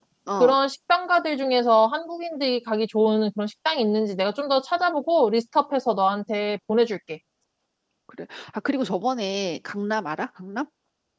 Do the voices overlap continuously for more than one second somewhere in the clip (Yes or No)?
No